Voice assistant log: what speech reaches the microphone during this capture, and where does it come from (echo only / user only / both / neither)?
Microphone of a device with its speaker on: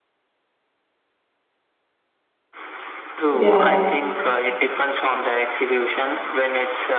both